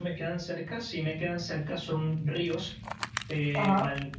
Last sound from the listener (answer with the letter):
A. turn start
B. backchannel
B